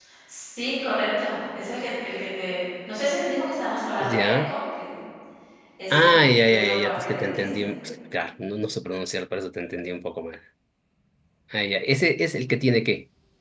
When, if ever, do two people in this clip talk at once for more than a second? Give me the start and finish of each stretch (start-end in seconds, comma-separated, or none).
5.9-7.7